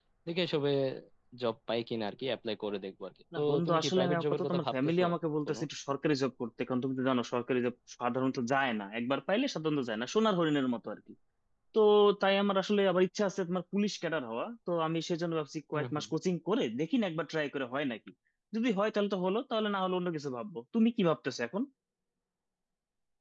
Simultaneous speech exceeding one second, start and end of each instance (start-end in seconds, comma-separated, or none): 3.4-5.0